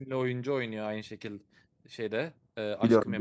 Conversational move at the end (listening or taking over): listening